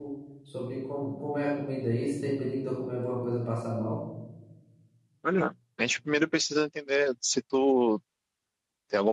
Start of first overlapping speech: none

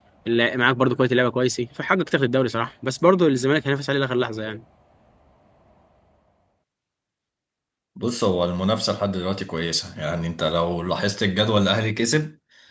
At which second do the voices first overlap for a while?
none

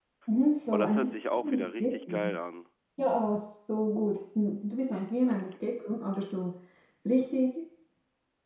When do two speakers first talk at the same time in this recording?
0.7 s

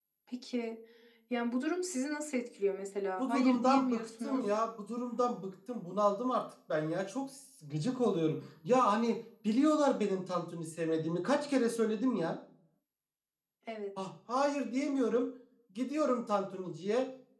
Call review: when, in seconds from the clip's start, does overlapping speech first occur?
3.2 s

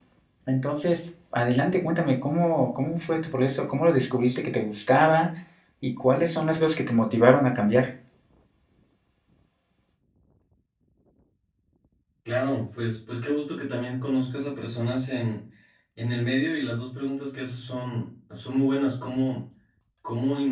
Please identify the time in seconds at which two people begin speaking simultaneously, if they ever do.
none

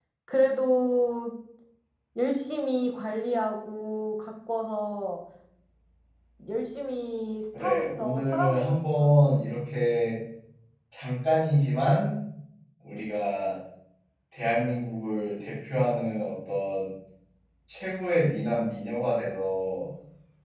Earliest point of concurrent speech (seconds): 7.5 s

